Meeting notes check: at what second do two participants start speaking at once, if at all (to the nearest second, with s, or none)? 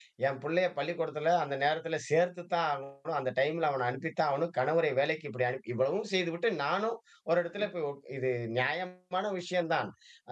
none